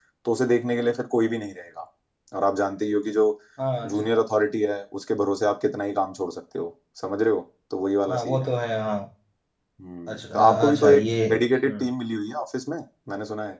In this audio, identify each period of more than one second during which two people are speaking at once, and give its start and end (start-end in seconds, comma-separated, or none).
10.1-11.9